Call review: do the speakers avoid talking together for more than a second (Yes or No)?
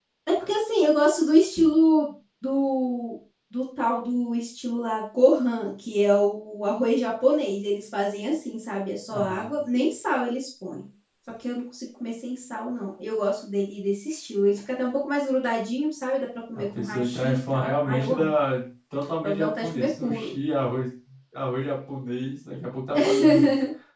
No